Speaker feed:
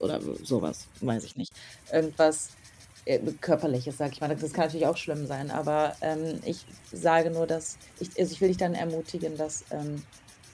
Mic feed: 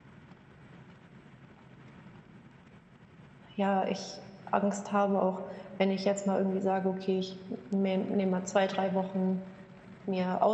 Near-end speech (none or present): present